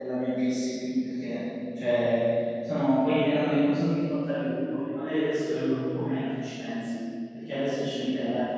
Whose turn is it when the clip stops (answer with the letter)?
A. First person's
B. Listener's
A